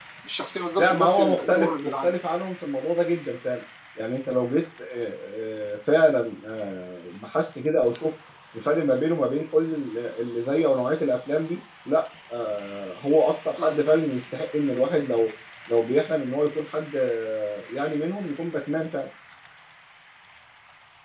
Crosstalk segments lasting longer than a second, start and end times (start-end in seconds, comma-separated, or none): 0.8-2.1